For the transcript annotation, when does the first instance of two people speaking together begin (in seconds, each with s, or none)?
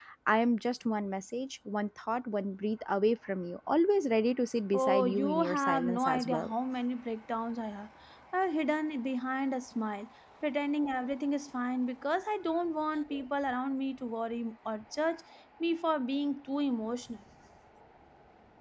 4.7 s